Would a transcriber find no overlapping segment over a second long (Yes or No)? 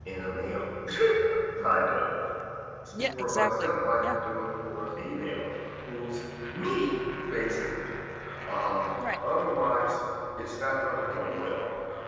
No